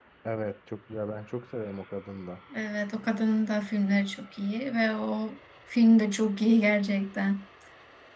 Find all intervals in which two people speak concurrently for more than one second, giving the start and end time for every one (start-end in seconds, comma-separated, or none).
none